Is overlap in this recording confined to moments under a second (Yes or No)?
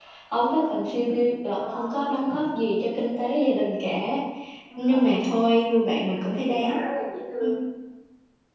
Yes